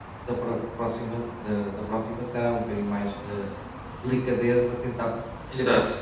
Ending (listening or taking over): listening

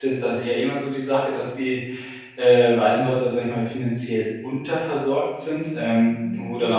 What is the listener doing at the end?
listening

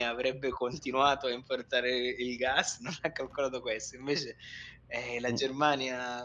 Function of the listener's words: listening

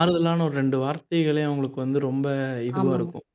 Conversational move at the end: listening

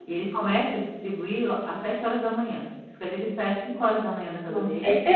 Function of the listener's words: taking over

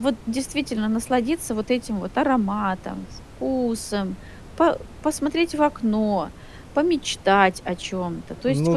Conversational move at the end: taking over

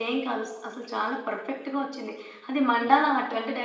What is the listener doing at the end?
listening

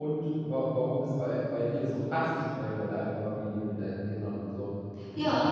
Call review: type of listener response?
taking over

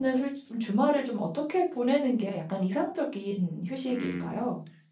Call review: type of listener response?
taking over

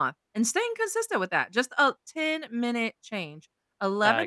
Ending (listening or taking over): listening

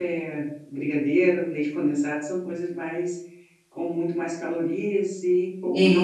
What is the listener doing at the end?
listening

